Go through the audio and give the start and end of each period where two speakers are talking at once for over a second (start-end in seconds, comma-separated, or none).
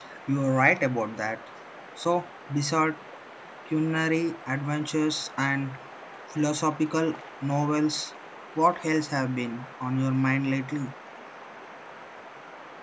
none